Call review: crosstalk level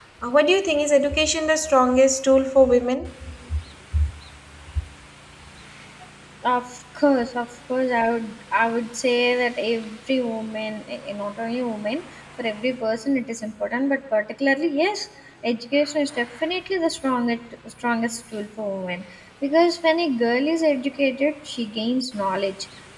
none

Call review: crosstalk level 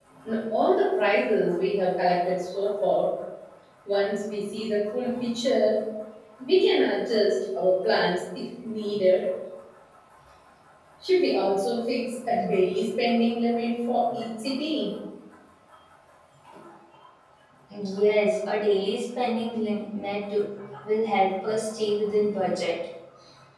none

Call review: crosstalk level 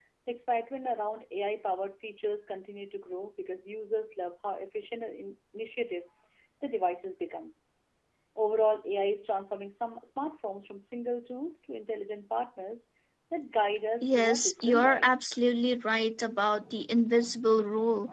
present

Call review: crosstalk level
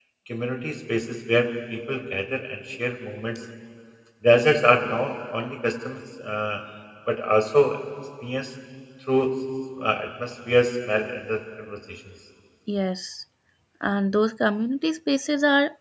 none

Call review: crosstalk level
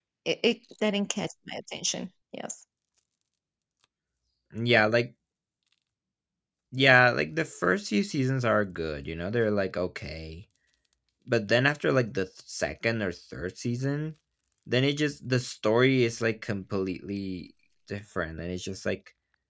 none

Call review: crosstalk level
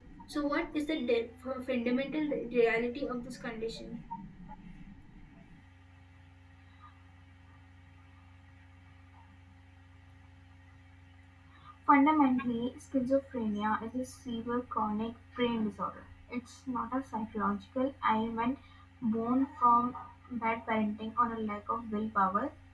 none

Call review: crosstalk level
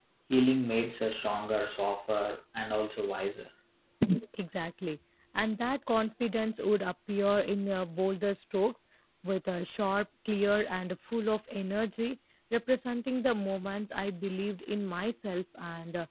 none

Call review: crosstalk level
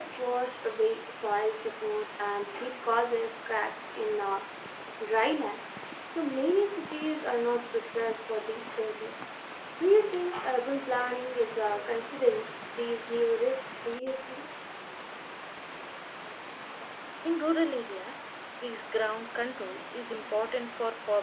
none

